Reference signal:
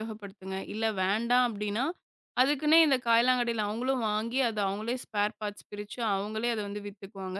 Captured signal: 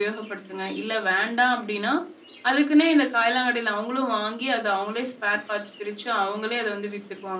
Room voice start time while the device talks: none

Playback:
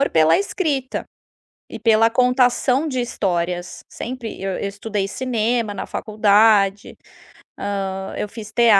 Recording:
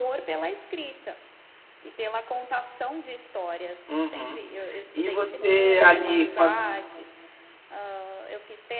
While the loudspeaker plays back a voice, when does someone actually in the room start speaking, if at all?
3.9 s

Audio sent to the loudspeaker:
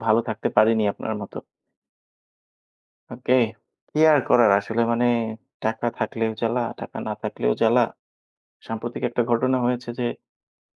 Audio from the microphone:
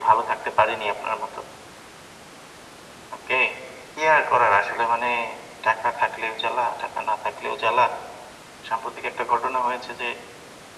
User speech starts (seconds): none

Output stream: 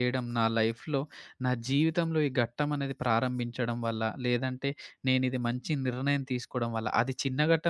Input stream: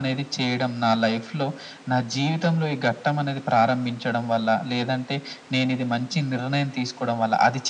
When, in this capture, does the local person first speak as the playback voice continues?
none

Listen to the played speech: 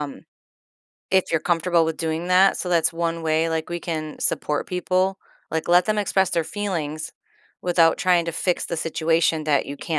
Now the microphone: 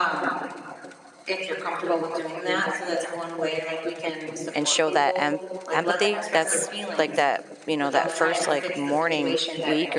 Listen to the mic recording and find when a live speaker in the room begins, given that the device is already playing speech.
4.5 s

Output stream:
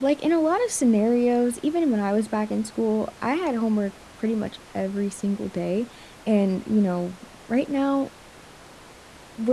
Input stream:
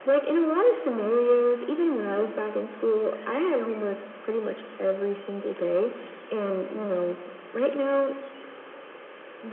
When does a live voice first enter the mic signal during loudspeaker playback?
none

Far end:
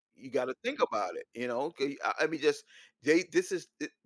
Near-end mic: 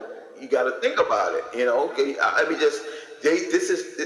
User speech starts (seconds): none

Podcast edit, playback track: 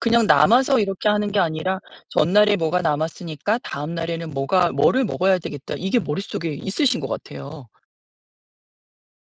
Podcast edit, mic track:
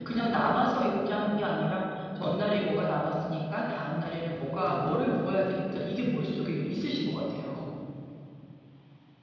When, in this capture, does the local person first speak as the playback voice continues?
none

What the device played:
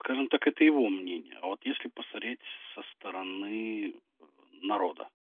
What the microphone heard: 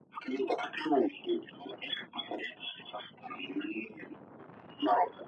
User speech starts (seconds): none

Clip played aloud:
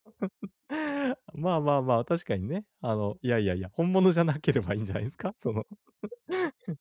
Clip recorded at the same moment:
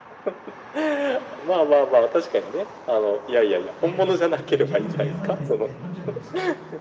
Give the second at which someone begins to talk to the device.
3.8 s

